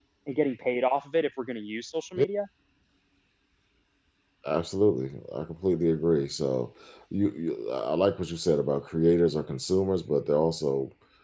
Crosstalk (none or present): none